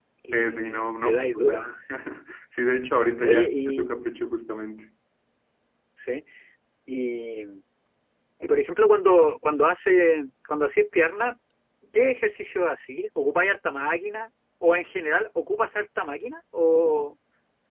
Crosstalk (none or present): present